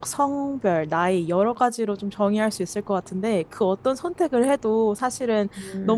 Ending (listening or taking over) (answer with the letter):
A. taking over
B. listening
B